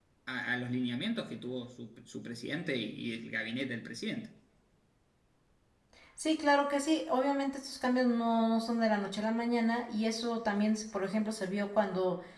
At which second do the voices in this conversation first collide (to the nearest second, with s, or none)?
none